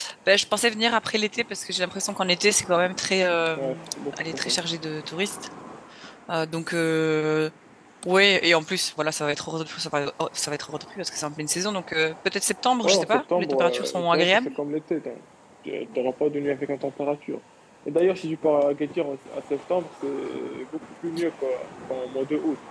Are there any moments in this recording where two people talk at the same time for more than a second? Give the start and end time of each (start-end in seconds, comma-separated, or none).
12.8-14.5